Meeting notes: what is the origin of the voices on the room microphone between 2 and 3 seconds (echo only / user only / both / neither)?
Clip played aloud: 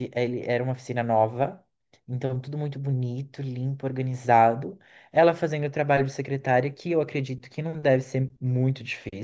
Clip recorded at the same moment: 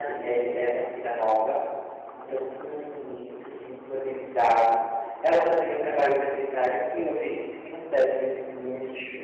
echo only